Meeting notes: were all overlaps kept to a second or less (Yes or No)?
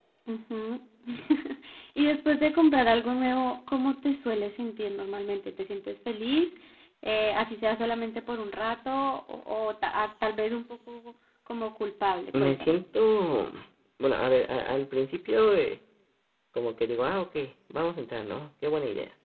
Yes